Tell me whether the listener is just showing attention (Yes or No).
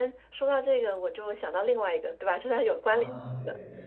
No